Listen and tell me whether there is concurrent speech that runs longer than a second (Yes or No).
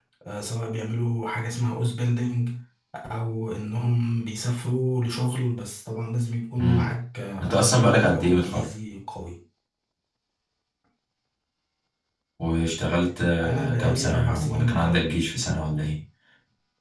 Yes